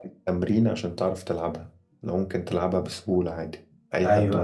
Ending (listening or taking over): taking over